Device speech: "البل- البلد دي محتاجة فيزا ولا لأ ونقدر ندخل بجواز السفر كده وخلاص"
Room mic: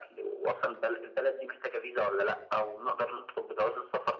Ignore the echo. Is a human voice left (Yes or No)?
No